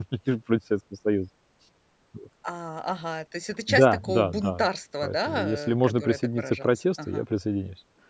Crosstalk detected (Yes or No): Yes